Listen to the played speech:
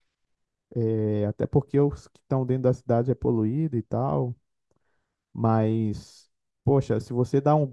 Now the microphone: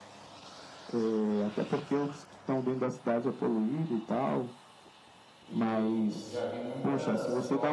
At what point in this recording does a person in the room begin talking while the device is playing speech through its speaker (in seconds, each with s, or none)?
5.5 s